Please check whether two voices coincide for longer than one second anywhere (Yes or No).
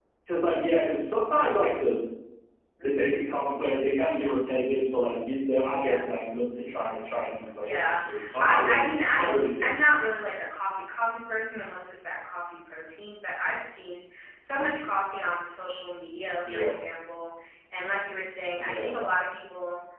Yes